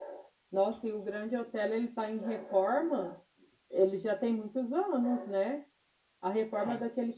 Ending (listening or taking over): listening